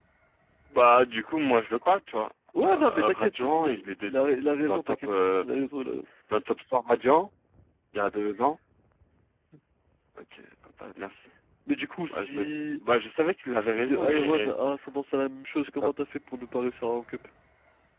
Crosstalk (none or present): present